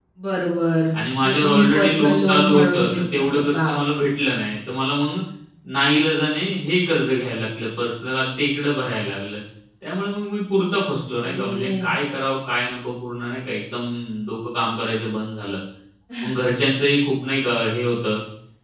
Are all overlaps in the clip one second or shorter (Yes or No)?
No